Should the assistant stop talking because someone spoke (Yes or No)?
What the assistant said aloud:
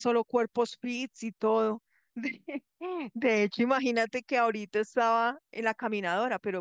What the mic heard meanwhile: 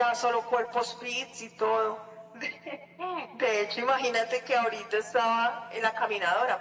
No